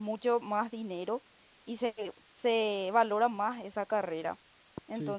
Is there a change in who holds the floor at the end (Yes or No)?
No